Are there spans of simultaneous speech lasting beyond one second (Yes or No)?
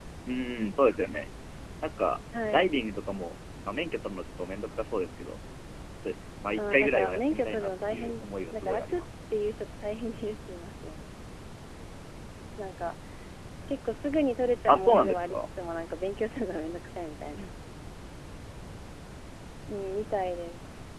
Yes